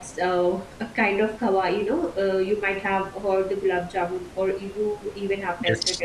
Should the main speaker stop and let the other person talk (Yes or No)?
No